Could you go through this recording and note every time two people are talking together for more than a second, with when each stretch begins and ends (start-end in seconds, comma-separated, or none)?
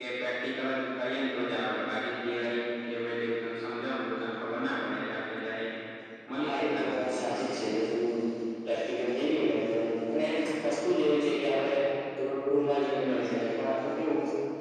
6.4-7.7